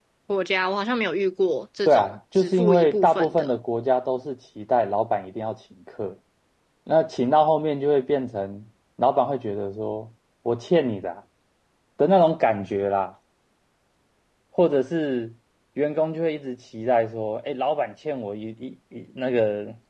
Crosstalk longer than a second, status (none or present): present